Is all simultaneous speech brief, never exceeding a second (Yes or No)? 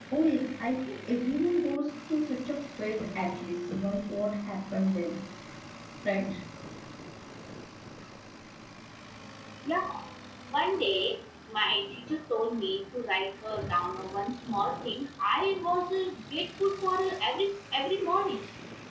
Yes